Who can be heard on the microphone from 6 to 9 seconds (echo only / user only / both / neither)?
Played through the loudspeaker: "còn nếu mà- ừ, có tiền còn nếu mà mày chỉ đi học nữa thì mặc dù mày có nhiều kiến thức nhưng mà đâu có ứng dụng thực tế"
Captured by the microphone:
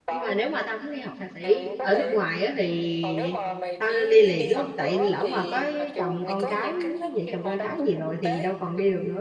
both